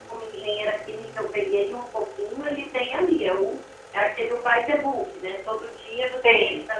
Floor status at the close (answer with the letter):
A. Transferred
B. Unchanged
B